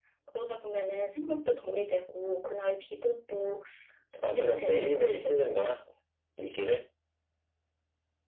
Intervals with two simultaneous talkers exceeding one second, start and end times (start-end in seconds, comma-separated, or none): 4.2-5.8